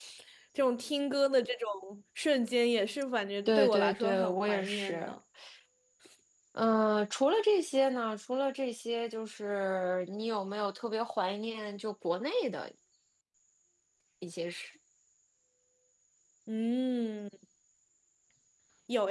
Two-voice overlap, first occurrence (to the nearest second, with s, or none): 3 s